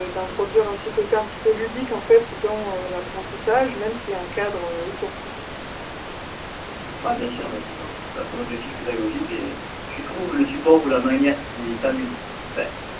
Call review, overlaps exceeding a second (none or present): none